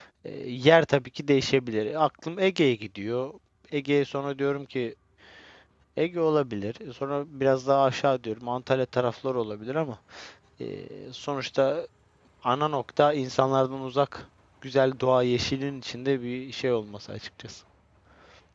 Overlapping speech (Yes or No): No